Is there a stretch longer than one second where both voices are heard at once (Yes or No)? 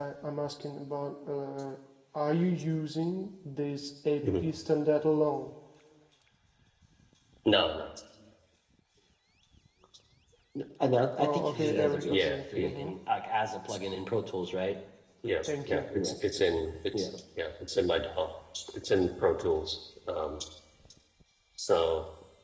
Yes